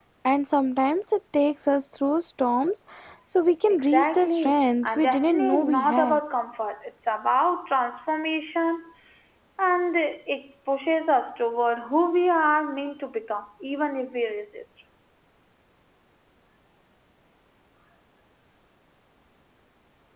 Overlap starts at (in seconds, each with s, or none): 3.7 s